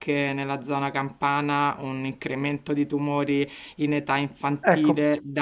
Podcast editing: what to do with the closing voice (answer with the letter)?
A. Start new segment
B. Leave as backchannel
B